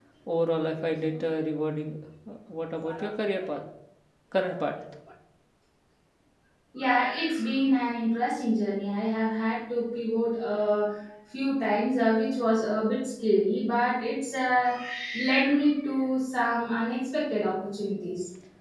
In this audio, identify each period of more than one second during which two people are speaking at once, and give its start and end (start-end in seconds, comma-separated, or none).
none